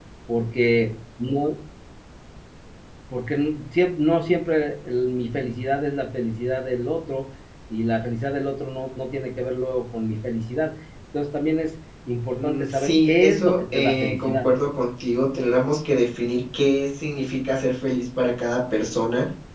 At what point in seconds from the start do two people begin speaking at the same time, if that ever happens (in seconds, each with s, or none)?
12.3 s